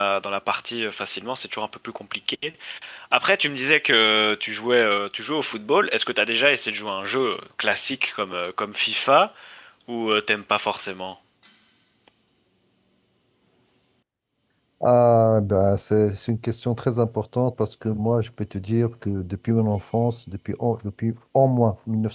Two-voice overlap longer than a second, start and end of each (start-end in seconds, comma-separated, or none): none